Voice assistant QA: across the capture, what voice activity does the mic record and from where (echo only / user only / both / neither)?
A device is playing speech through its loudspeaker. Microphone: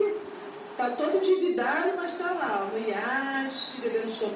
echo only